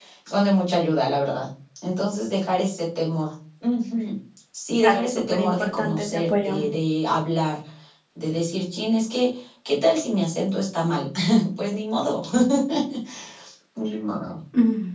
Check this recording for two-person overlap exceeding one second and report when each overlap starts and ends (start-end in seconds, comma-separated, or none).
4.8-6.5